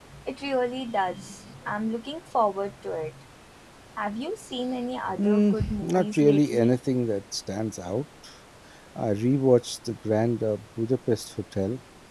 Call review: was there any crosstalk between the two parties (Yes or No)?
Yes